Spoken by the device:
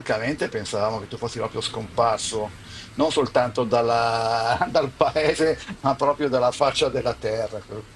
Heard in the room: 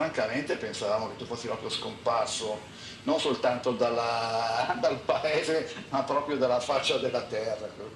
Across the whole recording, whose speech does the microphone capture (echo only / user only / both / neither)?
echo only